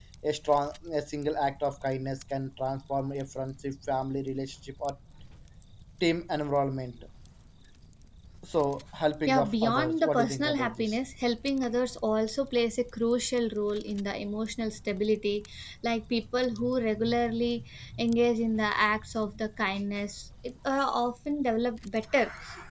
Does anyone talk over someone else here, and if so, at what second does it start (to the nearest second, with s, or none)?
9 s